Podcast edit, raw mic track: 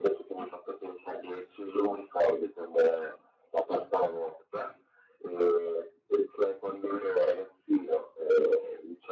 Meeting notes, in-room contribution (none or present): none